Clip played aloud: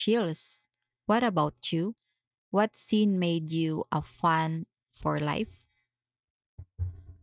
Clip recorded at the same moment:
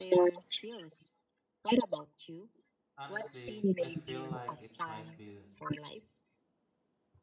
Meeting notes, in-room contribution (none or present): present